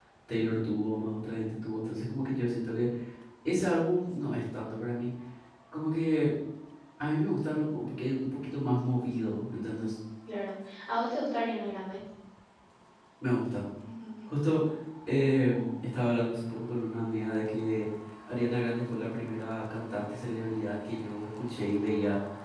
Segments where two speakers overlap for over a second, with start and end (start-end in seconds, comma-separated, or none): none